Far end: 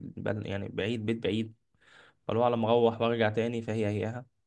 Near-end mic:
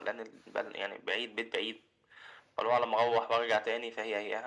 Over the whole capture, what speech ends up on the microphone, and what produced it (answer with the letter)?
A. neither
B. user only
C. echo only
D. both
C